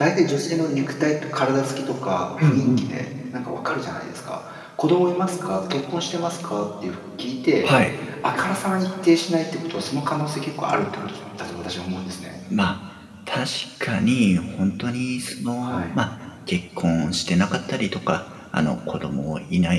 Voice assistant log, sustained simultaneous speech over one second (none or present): none